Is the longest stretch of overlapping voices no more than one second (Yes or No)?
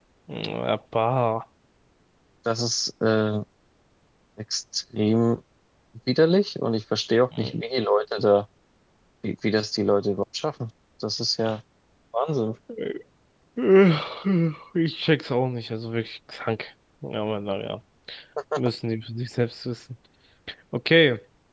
Yes